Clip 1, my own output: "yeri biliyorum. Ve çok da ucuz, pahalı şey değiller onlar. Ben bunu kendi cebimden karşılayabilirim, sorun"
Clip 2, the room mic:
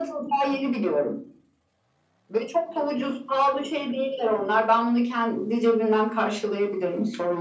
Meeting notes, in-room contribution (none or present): none